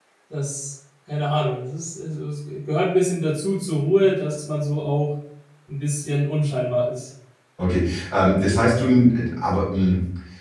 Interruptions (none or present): none